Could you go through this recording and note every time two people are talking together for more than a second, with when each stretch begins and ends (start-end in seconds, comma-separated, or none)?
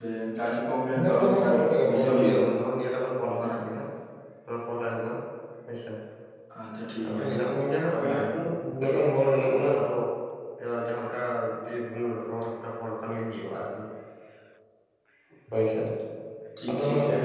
0.9-2.5